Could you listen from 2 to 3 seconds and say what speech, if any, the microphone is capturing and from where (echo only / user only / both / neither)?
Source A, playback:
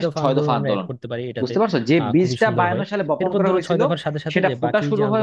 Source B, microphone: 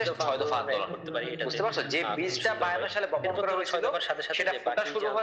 both